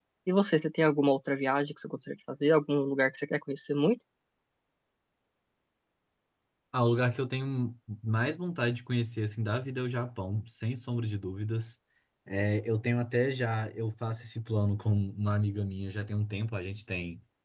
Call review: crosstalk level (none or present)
none